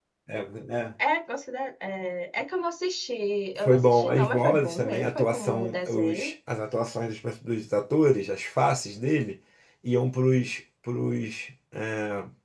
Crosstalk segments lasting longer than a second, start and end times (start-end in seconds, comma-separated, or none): 3.6-6.3